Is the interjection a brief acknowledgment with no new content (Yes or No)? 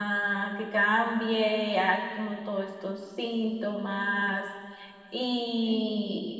Yes